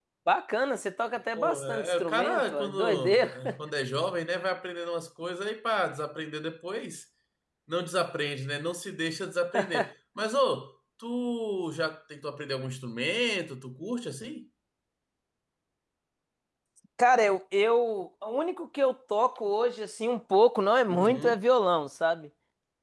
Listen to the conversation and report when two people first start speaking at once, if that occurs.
1.4 s

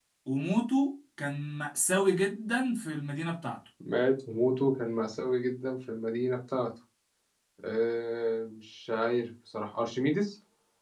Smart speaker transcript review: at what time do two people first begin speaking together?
none

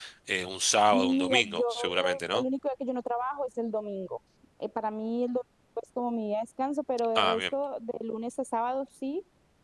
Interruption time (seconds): 0.9 s

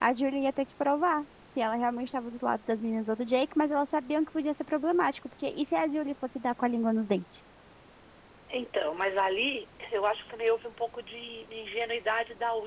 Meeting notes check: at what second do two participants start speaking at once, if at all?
none

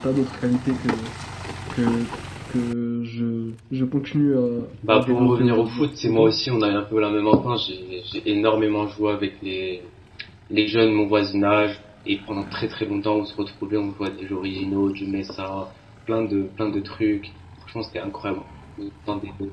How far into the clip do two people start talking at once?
4.7 s

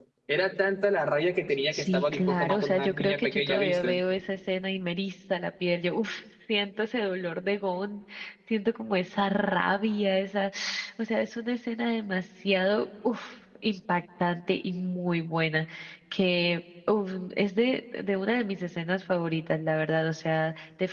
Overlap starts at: 1.7 s

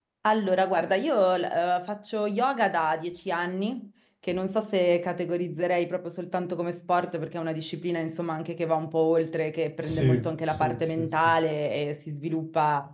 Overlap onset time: 9.8 s

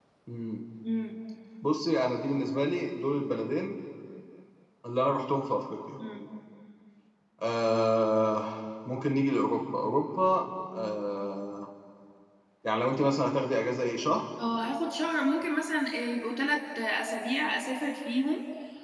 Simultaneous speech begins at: none

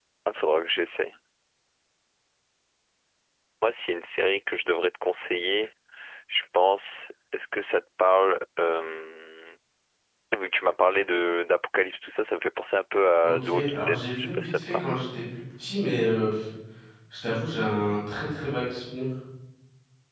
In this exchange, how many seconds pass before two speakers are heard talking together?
13.2 s

